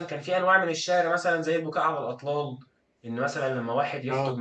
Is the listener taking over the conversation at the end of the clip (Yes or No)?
No